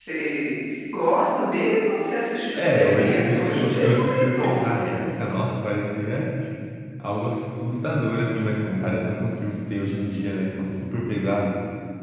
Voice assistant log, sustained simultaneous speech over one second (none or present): present